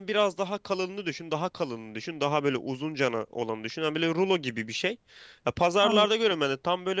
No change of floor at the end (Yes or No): Yes